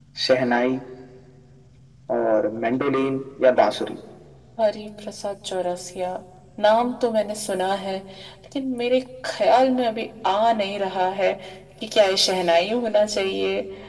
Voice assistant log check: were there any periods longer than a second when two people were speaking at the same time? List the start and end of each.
none

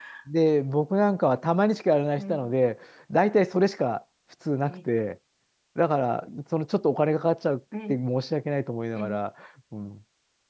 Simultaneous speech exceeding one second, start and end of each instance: none

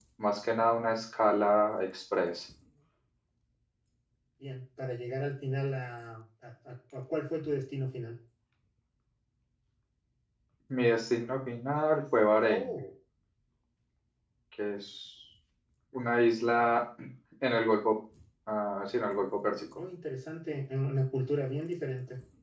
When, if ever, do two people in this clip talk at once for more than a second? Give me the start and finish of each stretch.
none

